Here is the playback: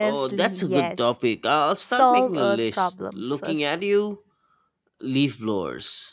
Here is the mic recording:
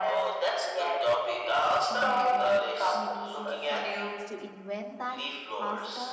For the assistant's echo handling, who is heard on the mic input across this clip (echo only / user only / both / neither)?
both